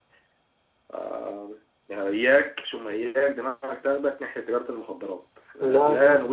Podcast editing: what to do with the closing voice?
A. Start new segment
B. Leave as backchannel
B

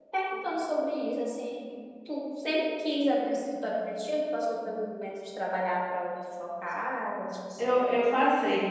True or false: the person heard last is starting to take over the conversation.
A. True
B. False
A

